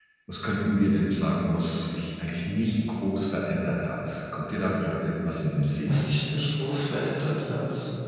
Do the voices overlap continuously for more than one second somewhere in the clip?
No

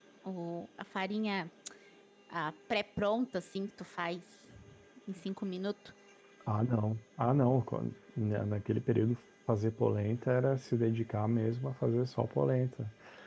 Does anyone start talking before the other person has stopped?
No

